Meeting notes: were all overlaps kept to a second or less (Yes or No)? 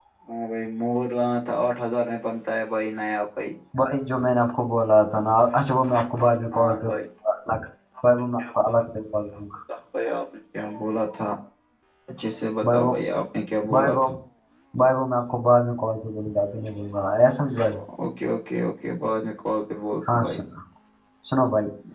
Yes